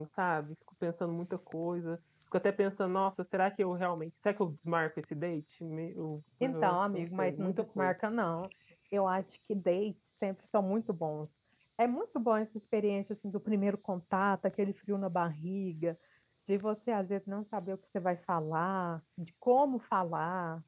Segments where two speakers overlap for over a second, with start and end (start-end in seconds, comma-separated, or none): 6.4-7.9